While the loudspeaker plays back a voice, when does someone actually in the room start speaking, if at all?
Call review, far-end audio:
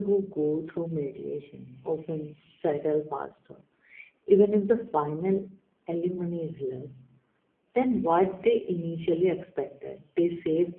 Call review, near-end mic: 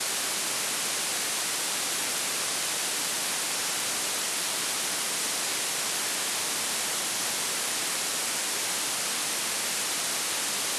none

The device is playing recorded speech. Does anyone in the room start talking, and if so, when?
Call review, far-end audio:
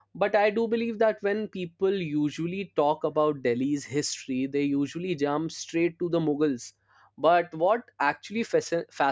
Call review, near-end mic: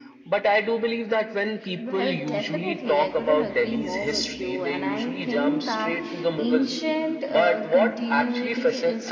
2 s

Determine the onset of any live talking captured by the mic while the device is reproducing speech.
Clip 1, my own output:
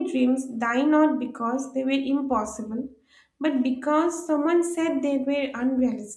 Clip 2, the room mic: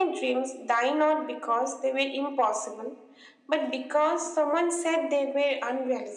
none

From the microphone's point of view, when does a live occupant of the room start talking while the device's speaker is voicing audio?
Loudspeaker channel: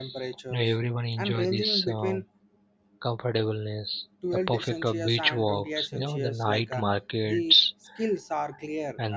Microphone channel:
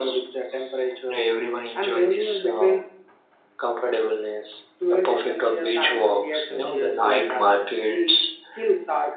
none

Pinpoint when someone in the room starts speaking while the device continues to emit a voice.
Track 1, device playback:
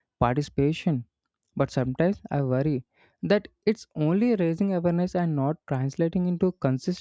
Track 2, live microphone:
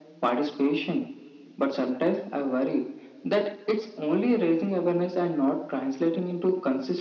none

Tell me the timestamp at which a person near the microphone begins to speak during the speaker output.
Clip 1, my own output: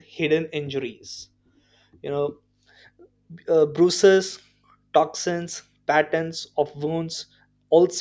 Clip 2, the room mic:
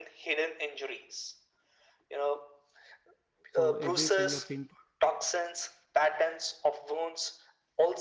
3 s

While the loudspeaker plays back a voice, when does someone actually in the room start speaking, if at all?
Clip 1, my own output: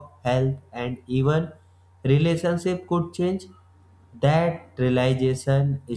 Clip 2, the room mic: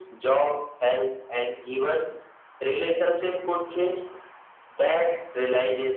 none

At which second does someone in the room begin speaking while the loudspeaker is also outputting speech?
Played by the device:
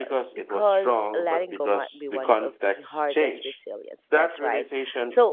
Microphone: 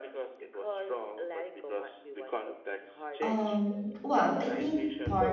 3 s

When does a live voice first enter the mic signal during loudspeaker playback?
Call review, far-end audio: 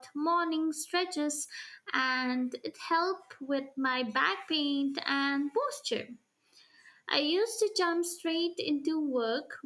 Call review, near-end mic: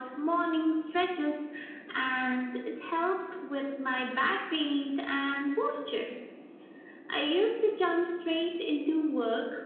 none

